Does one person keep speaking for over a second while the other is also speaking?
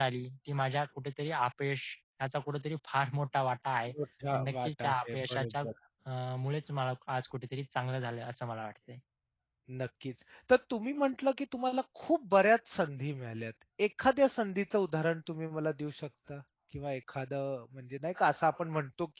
Yes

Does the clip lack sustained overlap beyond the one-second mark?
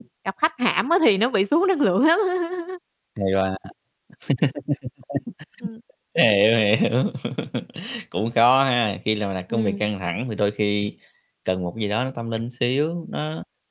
Yes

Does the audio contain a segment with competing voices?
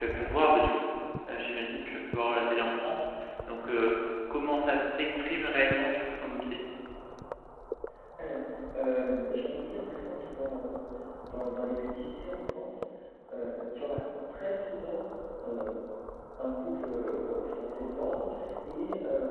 No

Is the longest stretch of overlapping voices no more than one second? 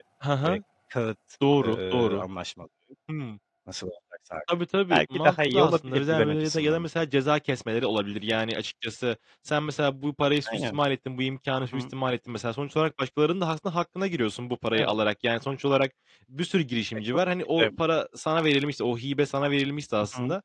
No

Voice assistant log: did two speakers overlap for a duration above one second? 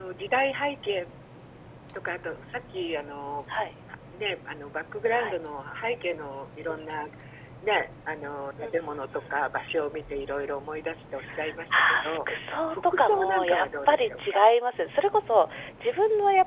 Yes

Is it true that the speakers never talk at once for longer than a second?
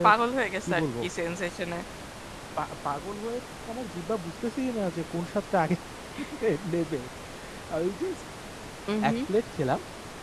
Yes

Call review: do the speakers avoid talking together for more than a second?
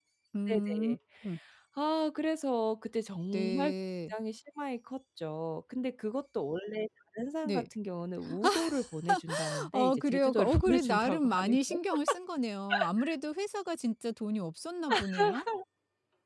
No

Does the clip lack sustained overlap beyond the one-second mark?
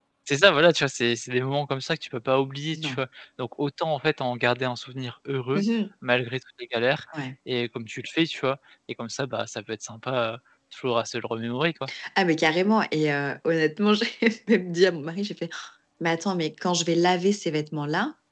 Yes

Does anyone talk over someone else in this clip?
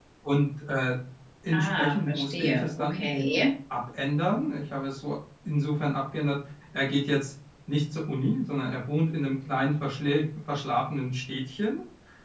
Yes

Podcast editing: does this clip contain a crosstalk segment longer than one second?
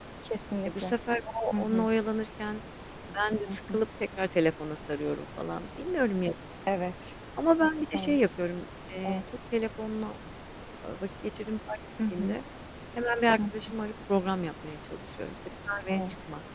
No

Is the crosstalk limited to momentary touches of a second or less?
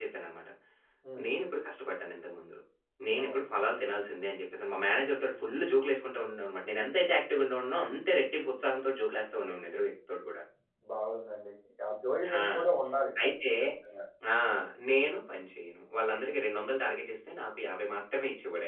Yes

